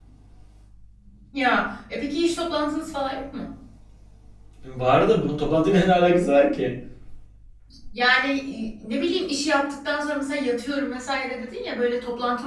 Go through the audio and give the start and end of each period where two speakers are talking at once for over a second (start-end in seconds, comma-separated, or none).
none